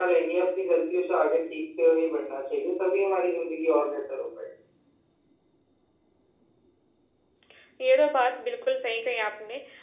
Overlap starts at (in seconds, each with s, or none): none